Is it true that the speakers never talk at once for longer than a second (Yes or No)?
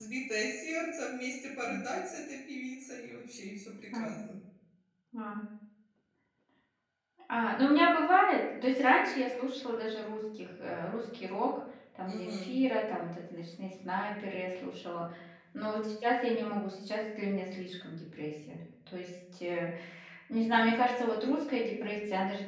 Yes